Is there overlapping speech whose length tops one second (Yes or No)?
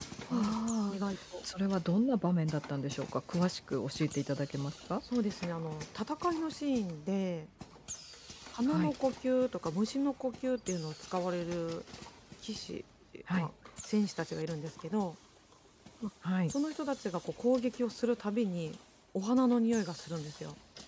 No